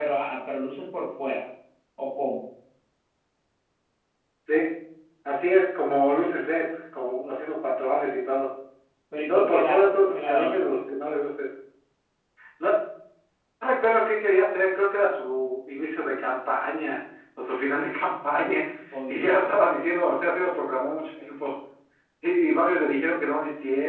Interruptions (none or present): present